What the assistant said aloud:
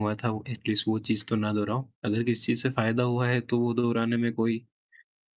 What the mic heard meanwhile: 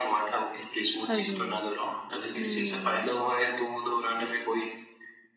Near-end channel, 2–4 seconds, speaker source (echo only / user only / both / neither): both